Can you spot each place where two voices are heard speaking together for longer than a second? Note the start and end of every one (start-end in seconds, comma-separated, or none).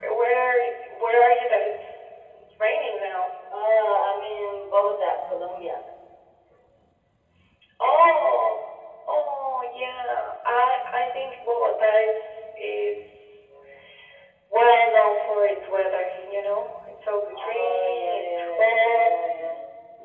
17.4-19.1